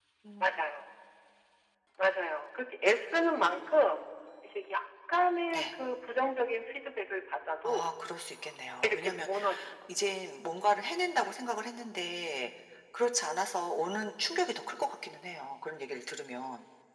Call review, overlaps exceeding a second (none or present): none